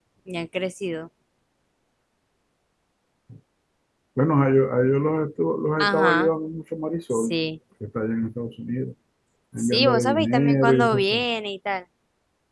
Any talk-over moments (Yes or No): Yes